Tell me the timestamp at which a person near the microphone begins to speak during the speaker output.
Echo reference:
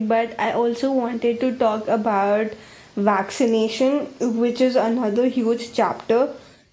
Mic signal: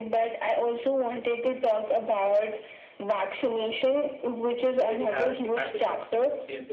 4.7 s

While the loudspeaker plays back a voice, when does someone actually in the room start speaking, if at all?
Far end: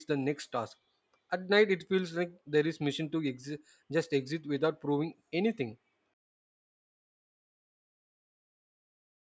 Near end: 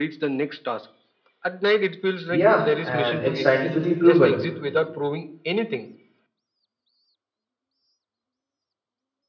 2.3 s

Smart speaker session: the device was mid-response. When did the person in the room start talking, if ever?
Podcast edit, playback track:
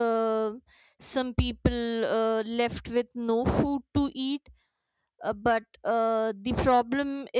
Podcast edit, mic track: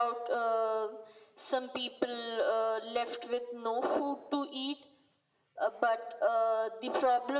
none

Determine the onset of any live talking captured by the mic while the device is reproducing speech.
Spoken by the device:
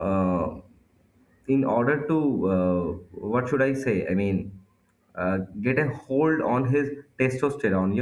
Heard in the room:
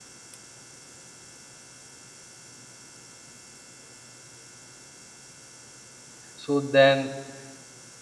6.3 s

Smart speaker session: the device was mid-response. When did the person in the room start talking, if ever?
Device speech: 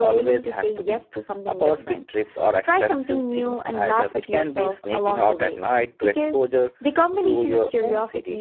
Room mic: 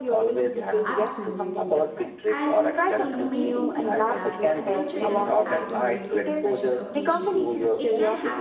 0.4 s

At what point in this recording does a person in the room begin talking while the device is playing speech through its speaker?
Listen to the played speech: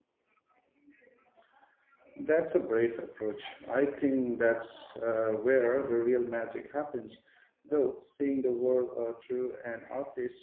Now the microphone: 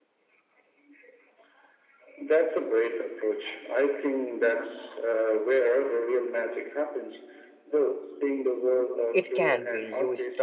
9.1 s

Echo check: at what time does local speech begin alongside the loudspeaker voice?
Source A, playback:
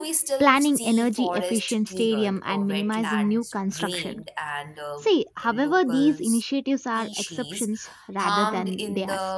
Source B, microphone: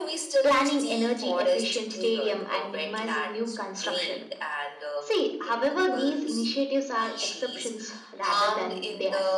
none

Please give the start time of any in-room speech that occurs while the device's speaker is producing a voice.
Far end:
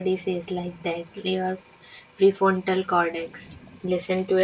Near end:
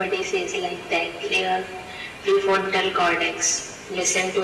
none

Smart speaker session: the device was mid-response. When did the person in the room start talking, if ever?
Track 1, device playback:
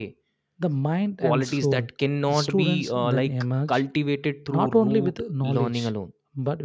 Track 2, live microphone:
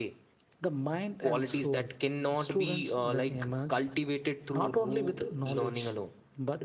none

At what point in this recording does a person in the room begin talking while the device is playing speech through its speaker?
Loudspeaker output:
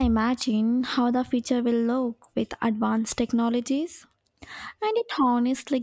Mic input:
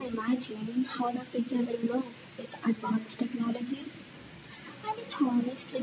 none

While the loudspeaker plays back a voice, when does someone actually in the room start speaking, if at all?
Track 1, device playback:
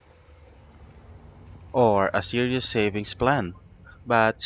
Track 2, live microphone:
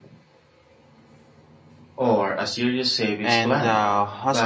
3.2 s

